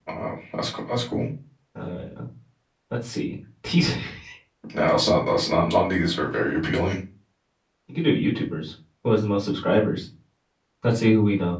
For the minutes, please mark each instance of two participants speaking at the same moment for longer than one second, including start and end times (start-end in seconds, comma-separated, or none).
none